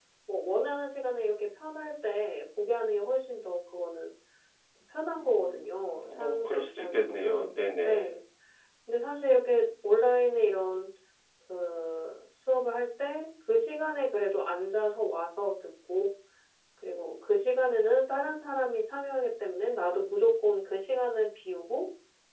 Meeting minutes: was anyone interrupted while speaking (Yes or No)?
Yes